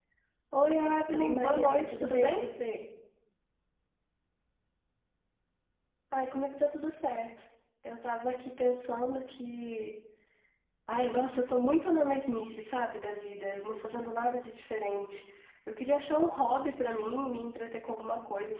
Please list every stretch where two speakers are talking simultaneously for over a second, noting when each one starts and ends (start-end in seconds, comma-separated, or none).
1.1-2.4